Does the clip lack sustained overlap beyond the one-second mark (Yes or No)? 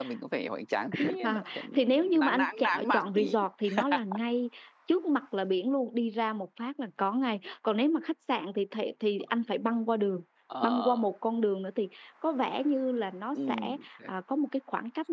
No